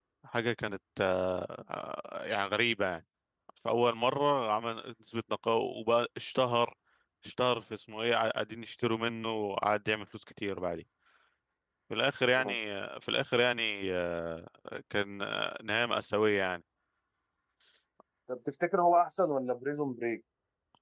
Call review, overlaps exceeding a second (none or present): none